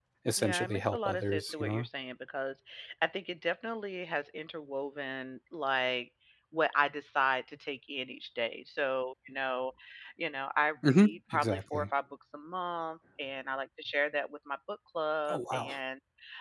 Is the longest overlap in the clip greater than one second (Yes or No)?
Yes